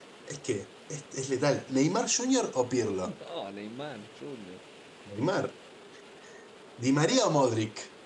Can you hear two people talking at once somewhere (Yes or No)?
No